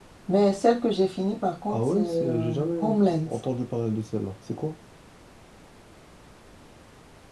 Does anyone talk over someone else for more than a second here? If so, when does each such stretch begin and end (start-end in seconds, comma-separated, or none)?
1.7-3.3